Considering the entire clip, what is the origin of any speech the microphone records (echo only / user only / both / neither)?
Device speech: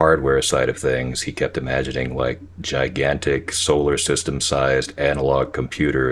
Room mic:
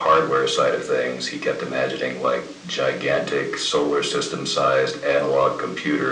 echo only